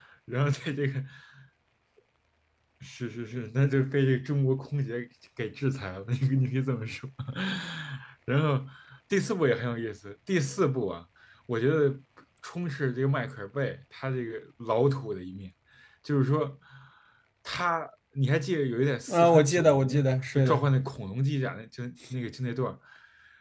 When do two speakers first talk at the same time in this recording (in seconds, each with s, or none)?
19.1 s